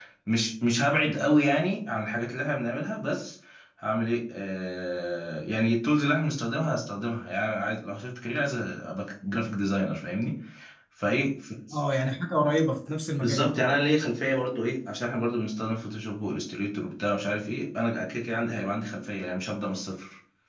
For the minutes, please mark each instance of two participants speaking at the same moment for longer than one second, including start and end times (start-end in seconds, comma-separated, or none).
none